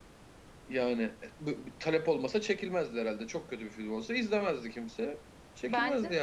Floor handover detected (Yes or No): Yes